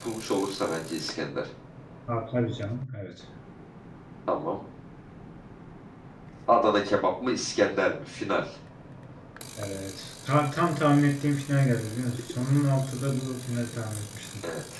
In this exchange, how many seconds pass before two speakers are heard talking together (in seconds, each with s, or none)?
none